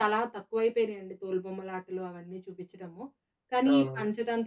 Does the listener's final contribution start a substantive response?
No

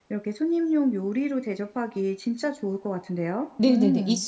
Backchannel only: No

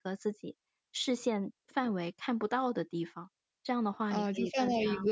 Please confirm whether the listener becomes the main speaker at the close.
Yes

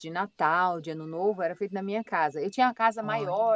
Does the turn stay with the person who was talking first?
Yes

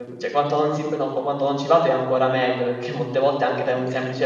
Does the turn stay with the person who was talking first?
Yes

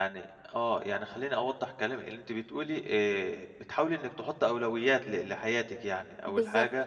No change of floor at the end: Yes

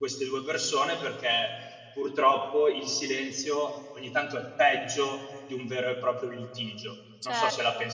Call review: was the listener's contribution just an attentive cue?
No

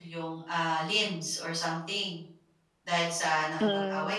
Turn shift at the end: No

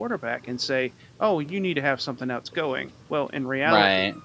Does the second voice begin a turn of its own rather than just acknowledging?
No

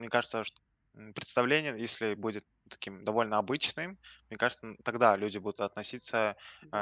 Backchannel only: Yes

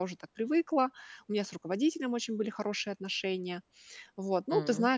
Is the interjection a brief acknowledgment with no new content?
Yes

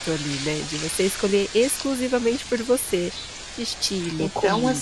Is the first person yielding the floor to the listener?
Yes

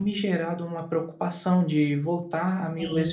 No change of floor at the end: Yes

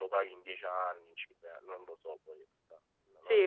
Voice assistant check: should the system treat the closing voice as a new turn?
Yes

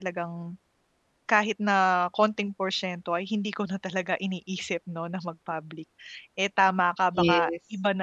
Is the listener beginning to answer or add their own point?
No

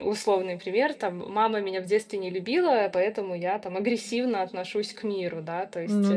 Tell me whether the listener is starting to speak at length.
No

